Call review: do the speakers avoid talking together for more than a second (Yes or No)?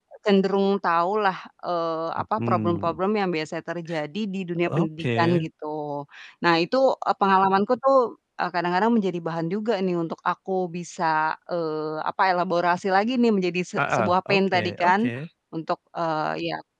No